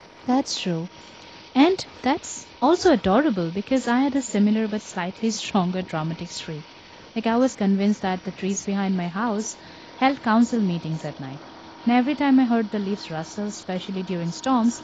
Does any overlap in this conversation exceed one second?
No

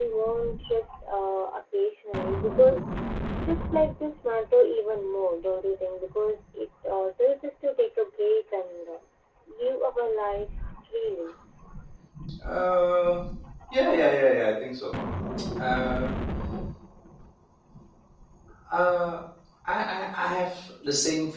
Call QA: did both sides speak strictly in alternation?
Yes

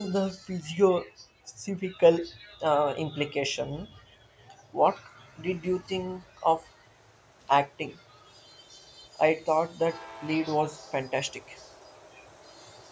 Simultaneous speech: No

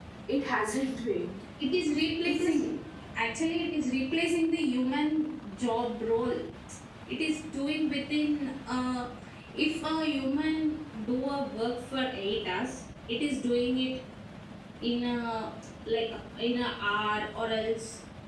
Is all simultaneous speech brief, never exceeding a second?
Yes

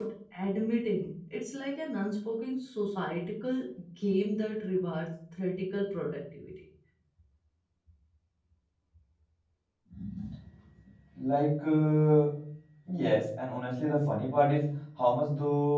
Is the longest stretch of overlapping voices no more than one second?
Yes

